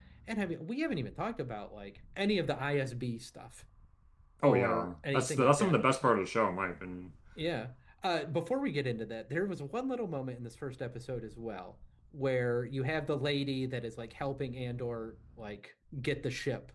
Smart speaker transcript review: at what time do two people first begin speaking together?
4 s

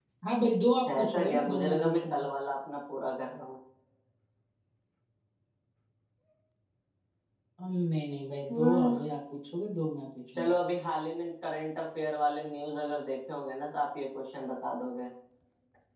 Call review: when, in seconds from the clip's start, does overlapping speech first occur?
1 s

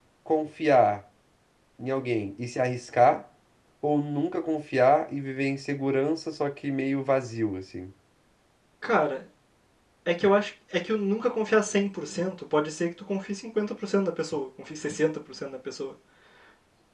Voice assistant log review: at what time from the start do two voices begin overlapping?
none

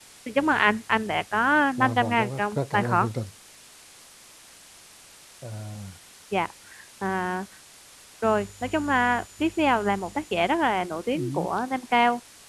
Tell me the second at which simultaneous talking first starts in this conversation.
2 s

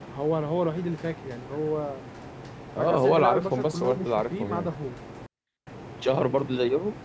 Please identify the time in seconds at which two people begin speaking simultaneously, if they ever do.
3 s

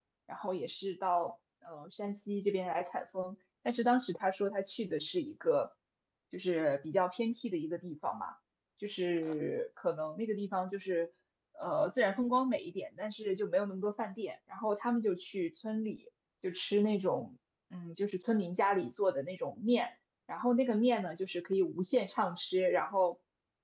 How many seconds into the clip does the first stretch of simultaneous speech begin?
none

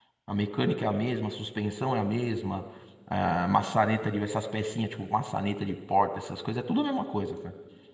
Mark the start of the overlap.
none

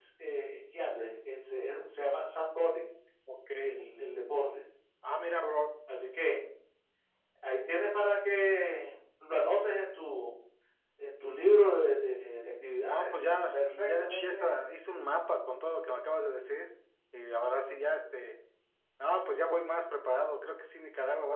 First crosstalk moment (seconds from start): 13 s

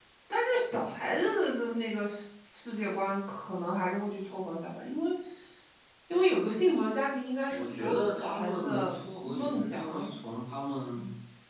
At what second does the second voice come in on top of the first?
8 s

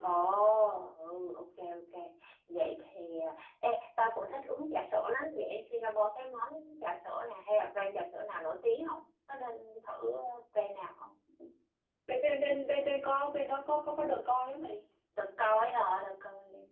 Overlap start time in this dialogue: none

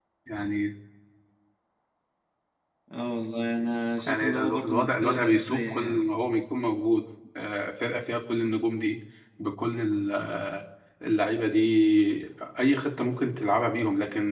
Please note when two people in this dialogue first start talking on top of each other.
4 s

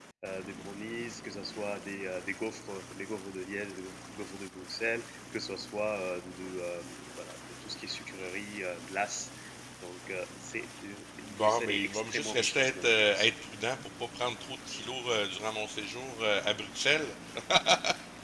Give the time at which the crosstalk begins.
11 s

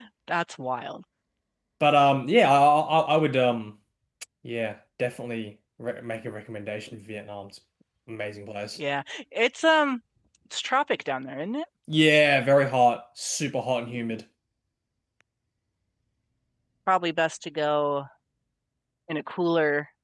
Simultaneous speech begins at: none

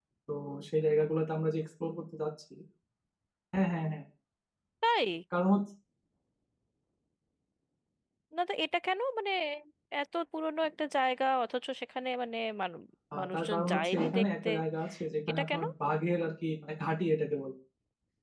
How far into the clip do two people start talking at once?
13 s

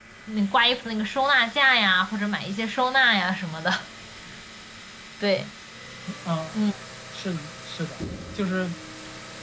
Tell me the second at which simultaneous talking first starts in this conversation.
none

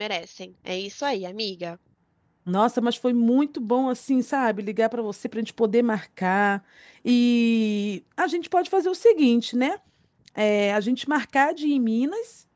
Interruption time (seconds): none

